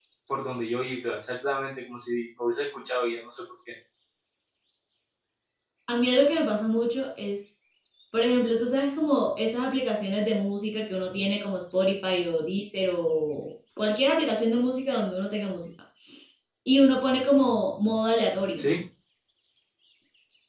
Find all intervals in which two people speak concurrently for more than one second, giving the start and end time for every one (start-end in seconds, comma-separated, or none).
none